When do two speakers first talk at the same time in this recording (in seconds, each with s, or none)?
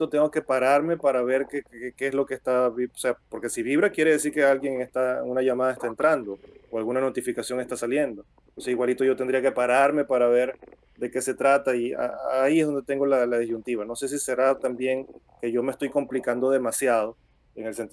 none